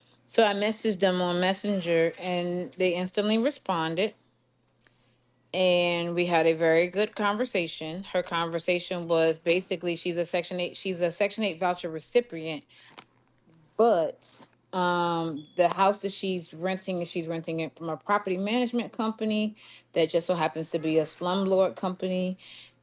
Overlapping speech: No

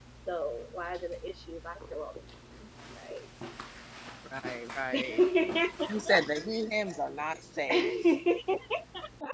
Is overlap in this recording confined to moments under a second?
Yes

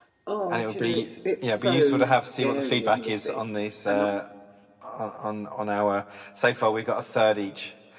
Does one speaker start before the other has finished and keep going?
Yes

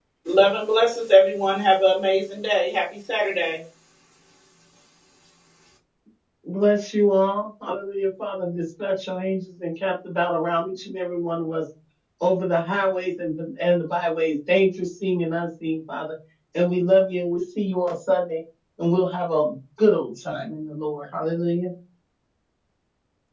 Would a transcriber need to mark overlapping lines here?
No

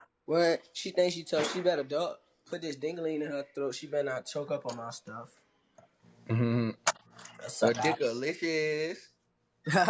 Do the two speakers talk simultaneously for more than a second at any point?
No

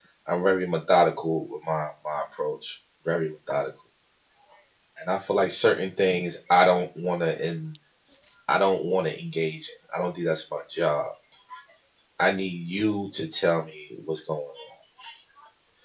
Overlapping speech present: No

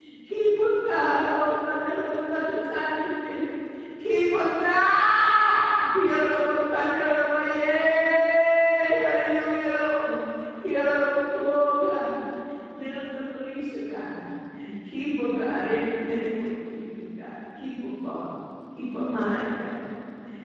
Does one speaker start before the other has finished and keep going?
No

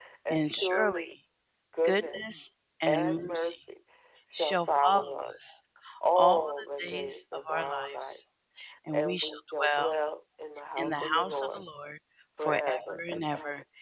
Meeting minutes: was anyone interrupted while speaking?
Yes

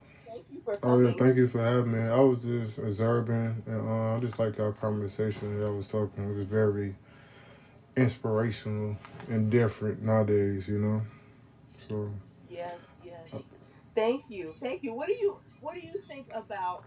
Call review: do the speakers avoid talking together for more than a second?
Yes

